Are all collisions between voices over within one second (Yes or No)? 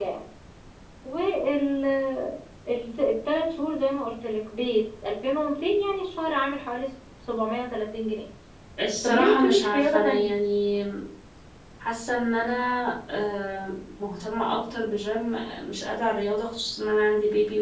No